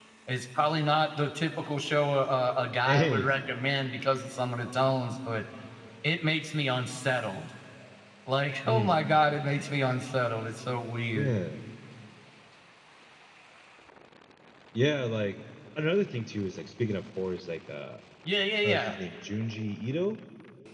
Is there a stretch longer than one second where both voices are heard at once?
No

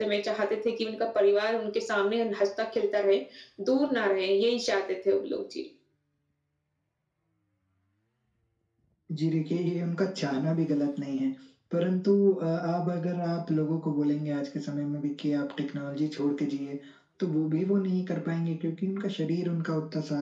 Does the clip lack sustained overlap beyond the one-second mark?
Yes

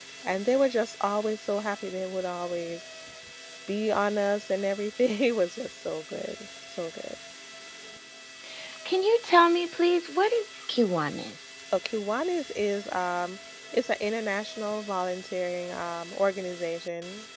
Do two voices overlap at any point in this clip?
No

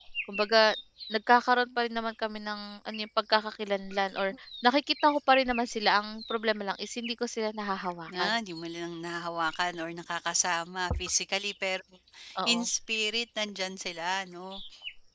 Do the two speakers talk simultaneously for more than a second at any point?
No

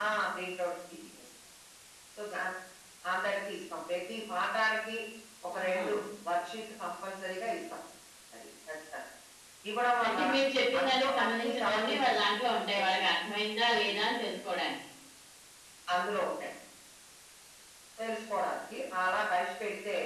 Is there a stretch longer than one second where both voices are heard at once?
Yes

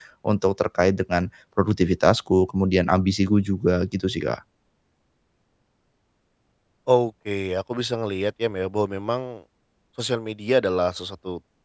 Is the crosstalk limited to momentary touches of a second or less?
Yes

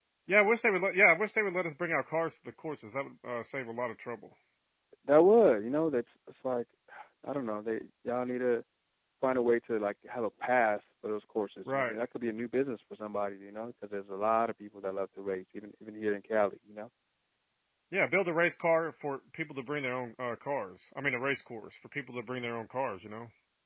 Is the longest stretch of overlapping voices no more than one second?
Yes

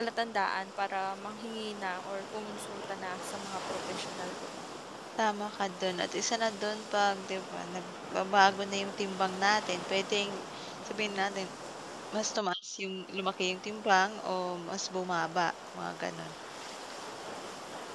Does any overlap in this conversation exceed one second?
No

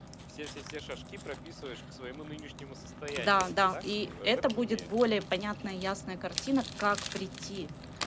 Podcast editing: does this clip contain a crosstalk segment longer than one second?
Yes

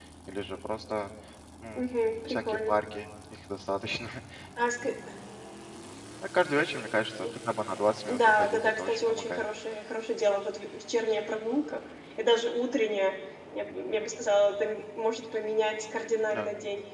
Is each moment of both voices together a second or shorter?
No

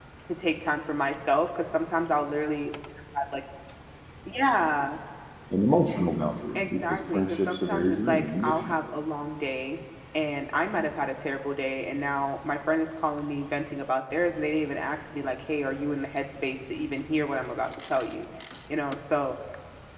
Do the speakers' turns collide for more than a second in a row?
Yes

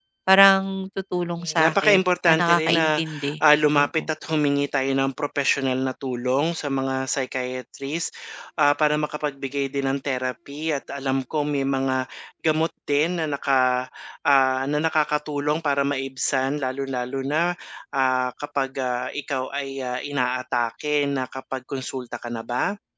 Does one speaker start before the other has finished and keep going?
Yes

